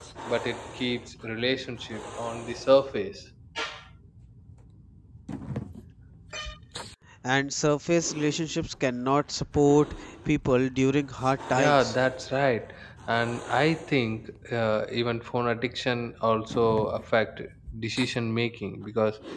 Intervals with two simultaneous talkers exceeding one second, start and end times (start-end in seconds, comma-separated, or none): none